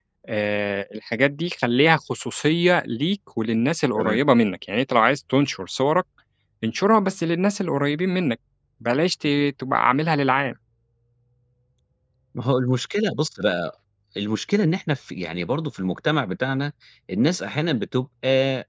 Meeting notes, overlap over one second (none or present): none